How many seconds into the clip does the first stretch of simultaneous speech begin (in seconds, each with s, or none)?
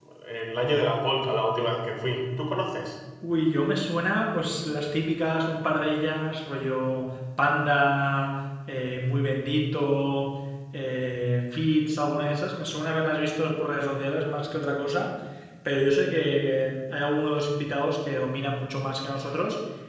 none